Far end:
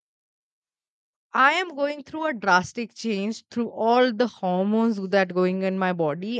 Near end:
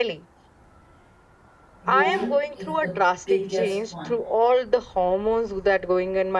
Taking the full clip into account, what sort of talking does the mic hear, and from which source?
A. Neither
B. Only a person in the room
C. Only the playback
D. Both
D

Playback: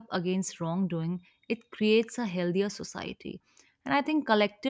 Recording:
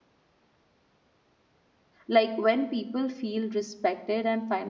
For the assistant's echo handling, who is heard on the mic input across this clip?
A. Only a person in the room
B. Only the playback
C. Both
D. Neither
A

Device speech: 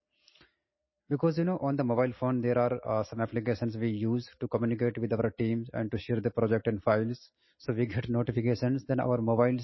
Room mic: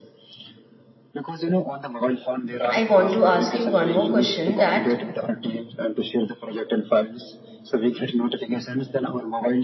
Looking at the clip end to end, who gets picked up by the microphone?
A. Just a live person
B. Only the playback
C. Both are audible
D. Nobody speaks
C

